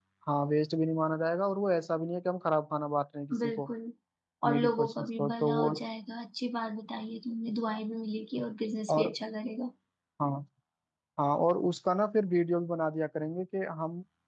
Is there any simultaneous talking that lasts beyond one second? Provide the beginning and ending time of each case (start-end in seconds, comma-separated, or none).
4.4-5.7